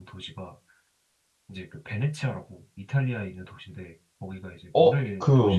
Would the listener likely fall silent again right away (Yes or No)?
No